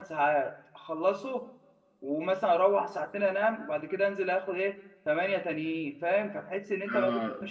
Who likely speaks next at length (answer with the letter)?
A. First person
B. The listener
A